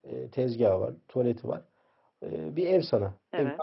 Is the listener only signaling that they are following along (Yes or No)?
Yes